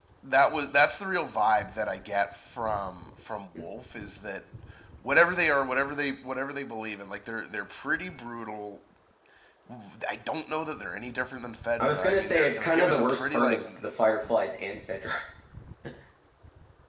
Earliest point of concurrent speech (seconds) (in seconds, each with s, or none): 11.8 s